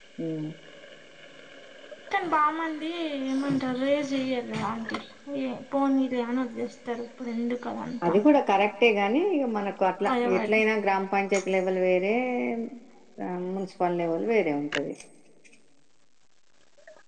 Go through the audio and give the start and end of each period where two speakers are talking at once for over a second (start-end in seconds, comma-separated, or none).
none